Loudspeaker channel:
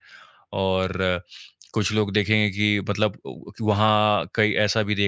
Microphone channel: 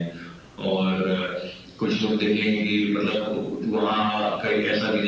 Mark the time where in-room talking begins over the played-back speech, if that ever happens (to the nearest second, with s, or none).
none